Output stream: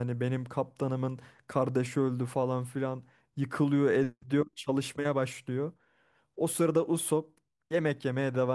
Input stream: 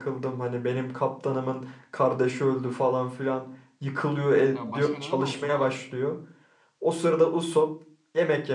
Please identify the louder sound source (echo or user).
echo